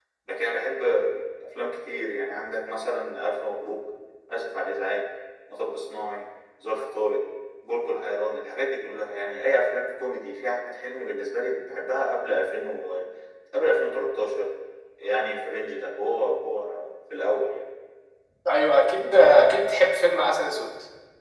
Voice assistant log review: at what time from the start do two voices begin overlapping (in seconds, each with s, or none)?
none